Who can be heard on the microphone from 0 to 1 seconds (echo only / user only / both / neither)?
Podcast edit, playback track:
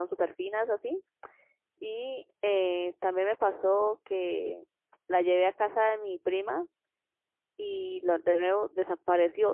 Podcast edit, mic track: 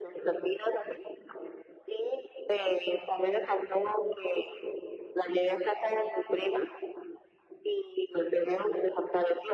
echo only